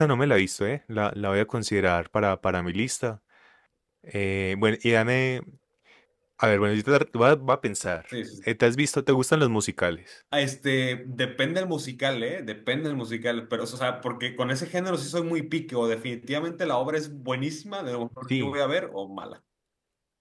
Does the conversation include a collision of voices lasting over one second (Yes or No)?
No